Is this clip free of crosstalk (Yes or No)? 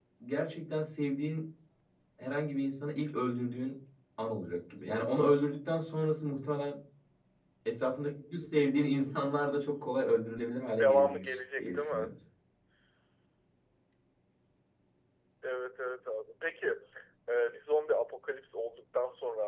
No